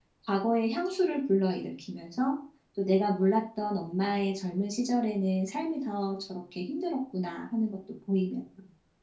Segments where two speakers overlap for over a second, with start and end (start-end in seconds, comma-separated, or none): none